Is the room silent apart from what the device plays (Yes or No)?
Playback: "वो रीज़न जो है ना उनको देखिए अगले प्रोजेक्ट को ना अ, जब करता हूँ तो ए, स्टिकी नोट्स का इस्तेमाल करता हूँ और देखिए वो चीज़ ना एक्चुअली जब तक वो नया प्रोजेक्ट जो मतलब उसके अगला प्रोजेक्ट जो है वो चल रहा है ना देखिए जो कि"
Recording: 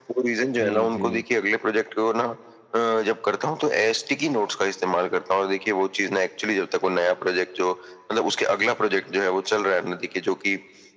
No